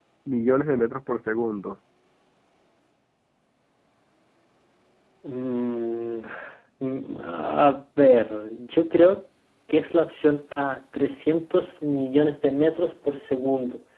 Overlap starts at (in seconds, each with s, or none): none